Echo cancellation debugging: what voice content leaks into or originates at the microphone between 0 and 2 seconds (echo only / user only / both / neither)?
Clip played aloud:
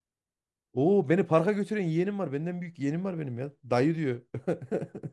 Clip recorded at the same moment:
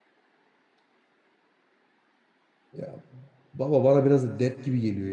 neither